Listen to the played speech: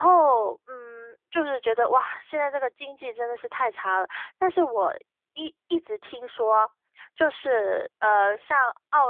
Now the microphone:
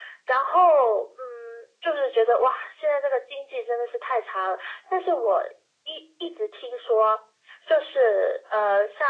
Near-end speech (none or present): none